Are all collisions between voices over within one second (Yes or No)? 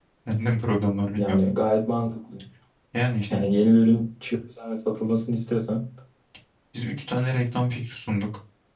Yes